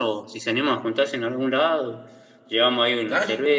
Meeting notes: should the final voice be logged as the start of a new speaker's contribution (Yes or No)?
No